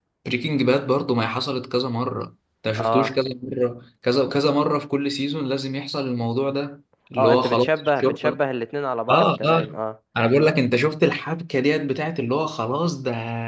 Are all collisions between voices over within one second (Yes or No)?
No